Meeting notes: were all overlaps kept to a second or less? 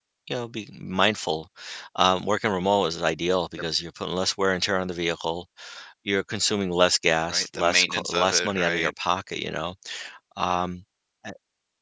No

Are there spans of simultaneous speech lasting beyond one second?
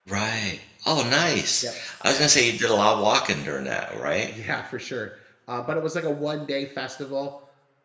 No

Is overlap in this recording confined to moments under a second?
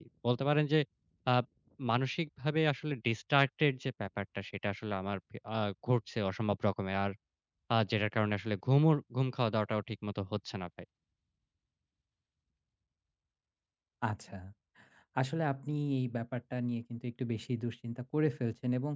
Yes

